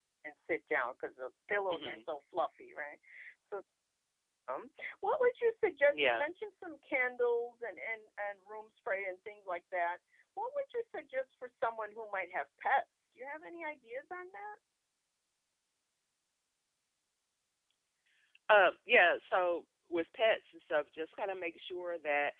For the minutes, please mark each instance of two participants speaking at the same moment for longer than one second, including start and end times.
none

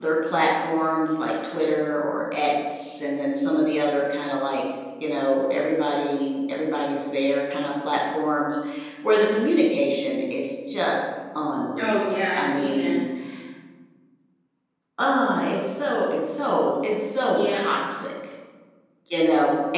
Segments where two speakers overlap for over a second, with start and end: 11.8-13.0

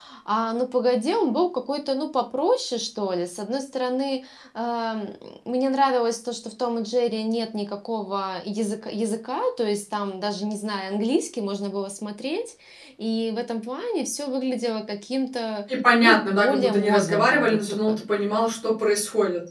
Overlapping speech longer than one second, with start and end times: 16.0-18.0

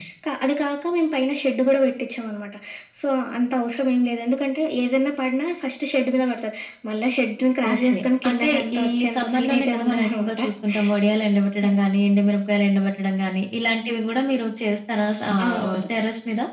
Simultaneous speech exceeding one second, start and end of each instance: 7.7-10.4

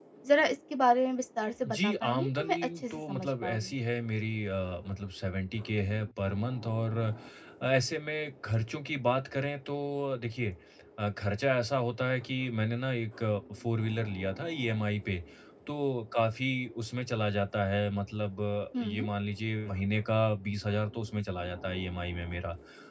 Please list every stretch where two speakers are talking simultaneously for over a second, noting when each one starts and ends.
1.8-3.7

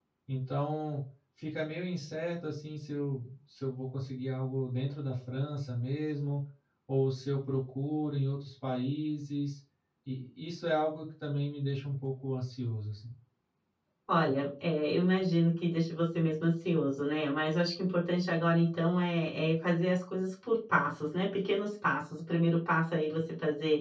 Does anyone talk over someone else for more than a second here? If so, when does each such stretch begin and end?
none

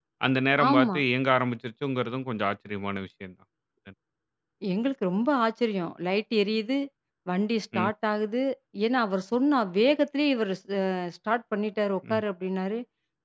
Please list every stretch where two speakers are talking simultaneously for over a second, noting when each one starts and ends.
none

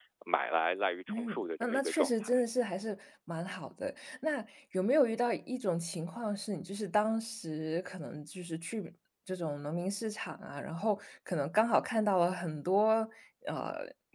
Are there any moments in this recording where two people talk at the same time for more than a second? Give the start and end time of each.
1.1-2.3

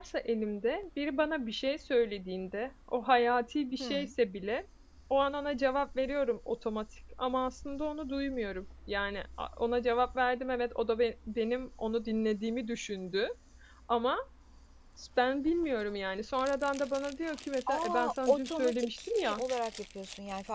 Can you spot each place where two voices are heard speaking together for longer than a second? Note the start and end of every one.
17.7-19.4

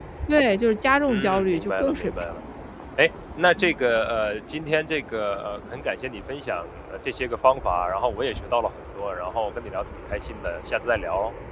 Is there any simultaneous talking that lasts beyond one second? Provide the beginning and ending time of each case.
1.1-2.3

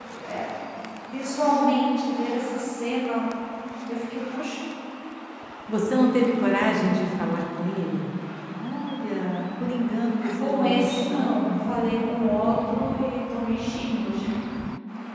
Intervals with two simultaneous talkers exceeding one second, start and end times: 10.4-11.7

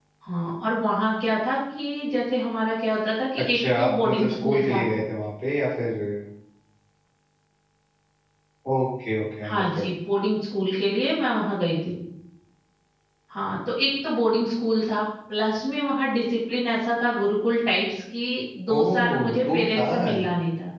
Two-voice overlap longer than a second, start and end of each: 3.5-4.8, 18.8-20.2

